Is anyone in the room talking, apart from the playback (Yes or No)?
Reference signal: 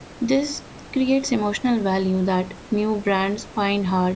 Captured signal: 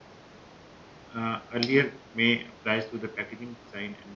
Yes